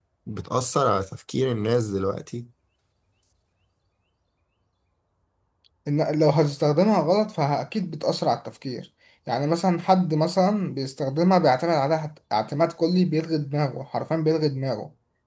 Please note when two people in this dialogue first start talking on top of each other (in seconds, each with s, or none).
none